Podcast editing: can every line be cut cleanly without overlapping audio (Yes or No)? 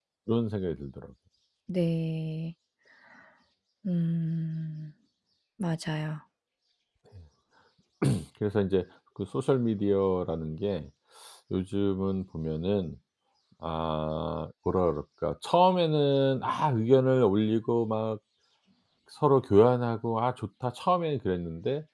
Yes